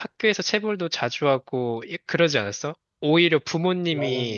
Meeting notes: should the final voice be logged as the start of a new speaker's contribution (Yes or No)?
No